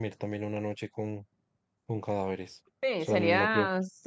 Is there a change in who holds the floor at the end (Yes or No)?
Yes